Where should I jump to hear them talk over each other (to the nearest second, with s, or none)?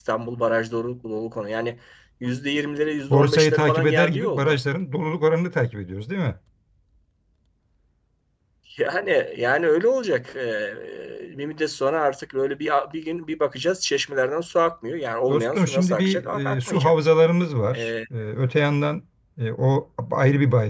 3 s